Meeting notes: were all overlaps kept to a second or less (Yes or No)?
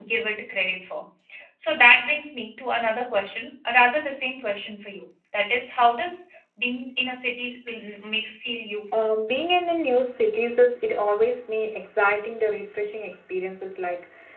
Yes